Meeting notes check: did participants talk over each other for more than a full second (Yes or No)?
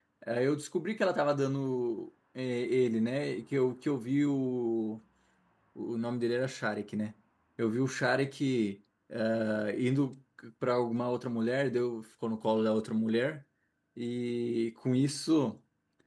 No